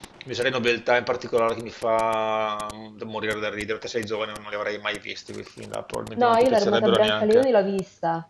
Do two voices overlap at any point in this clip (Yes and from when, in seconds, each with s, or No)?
Yes, from 6.2 s